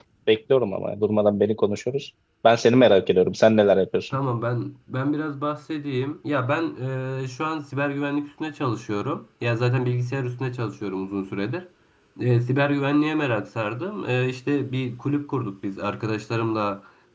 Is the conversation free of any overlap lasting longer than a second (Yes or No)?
Yes